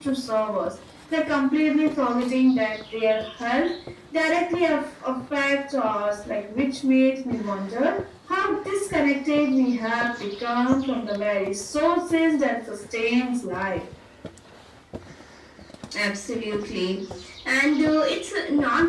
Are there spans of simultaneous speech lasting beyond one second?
No

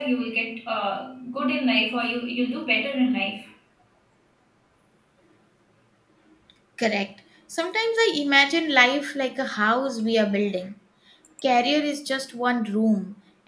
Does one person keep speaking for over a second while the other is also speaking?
No

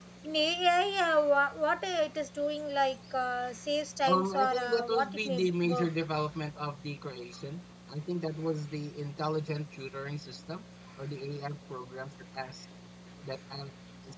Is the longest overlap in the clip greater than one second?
Yes, from 4.0 s

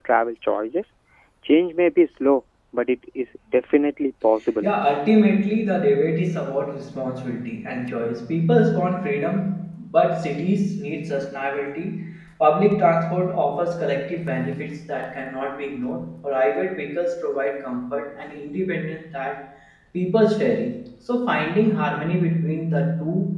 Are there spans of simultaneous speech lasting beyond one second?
No

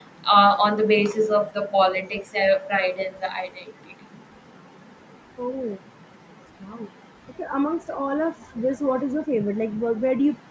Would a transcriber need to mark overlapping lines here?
No

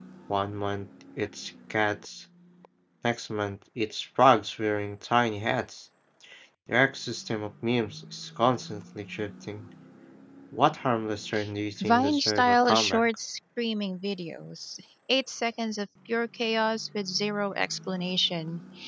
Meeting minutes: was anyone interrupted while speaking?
Yes, from 11.8 s

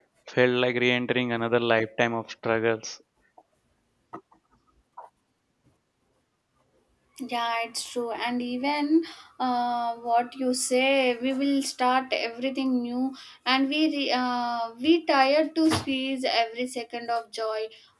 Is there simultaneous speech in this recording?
No

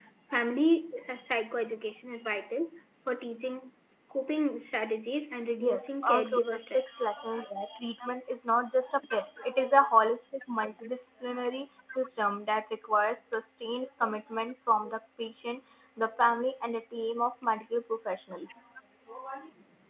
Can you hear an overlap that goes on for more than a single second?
Yes, from 5.6 s

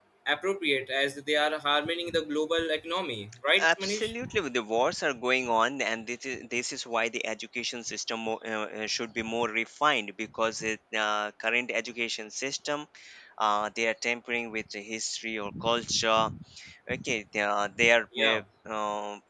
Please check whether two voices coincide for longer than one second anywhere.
No

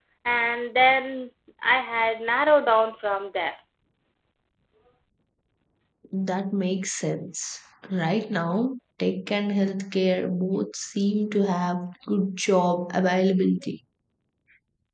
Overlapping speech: No

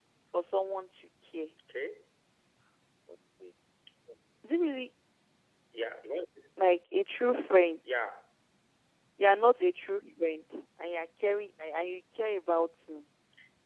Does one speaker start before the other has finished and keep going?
No

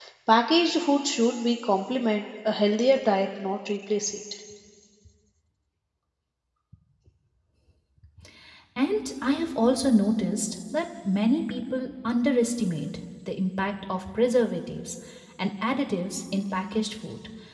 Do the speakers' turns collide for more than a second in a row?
No

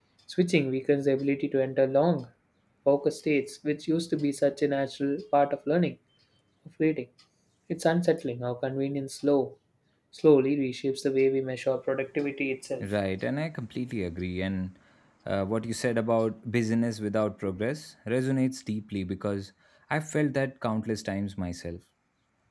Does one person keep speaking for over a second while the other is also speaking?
No

